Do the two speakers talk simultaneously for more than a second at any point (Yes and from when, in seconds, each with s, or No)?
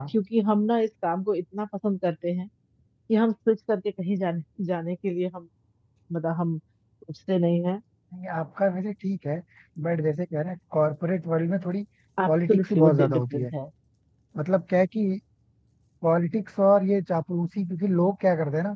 Yes, from 12.3 s